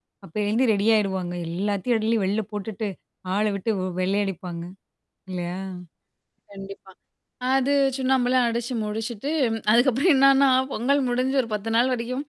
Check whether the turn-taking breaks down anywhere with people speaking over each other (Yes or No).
No